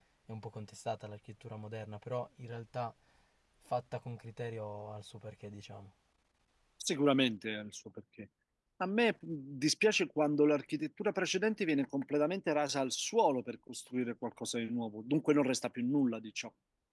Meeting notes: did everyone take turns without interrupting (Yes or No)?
Yes